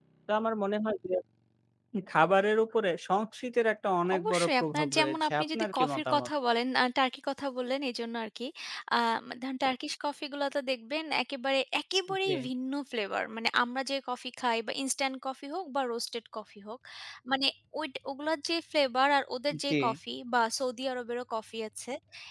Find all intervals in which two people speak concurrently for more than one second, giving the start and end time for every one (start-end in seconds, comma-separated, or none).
4.2-6.3